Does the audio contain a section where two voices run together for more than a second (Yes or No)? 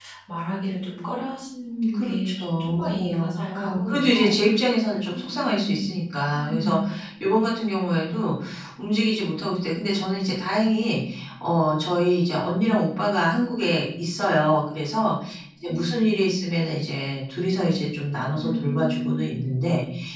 Yes